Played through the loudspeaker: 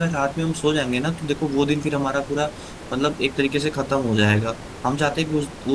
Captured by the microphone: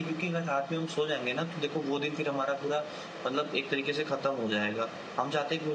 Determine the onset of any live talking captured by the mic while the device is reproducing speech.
none

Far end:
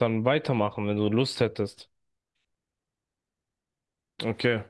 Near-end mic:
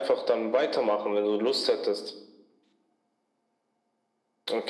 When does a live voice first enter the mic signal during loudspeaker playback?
none

